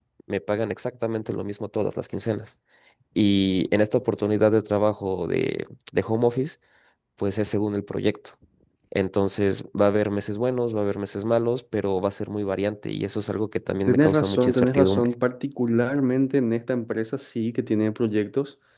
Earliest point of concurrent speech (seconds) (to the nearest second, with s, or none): 14 s